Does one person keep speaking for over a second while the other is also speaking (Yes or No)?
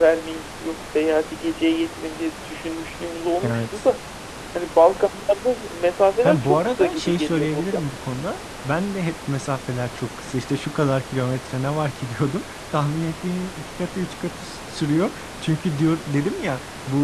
Yes